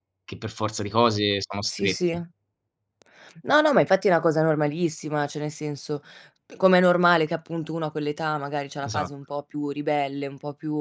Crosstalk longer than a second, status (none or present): none